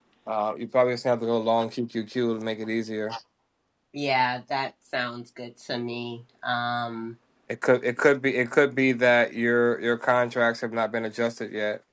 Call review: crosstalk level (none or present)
none